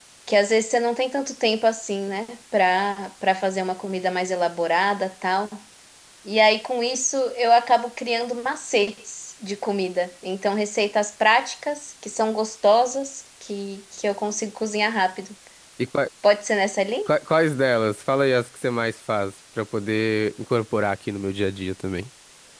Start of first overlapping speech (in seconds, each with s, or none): none